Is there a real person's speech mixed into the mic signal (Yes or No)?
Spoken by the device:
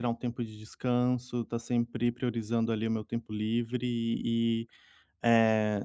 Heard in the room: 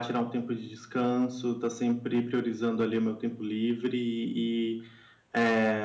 No